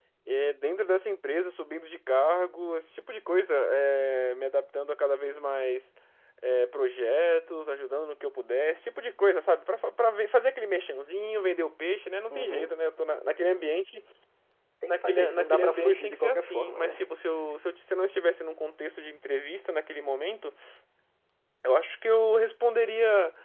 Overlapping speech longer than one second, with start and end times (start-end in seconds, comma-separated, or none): 14.9-16.9